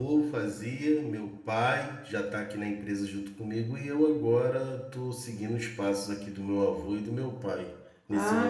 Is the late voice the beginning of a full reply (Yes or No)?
Yes